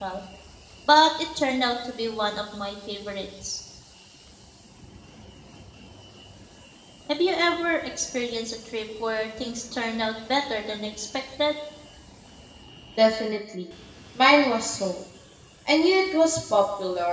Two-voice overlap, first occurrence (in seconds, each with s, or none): none